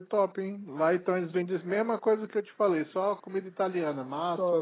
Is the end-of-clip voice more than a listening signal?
Yes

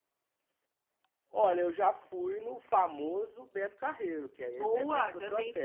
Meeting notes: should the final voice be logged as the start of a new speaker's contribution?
Yes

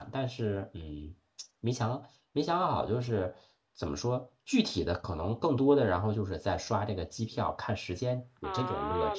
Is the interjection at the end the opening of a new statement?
Yes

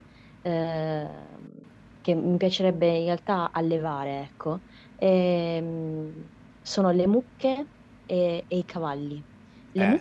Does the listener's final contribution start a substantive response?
No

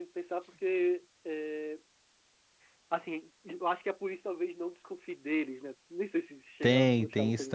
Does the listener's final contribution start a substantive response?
Yes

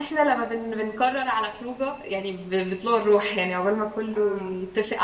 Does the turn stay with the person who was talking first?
Yes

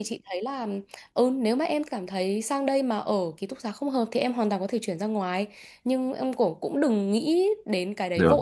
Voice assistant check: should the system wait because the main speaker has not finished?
Yes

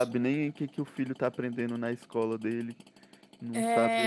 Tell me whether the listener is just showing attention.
No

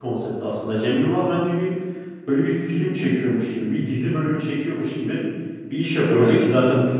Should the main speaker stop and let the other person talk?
No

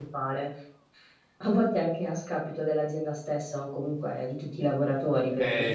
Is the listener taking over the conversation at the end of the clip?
No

